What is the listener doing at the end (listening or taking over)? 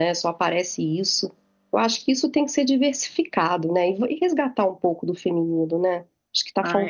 taking over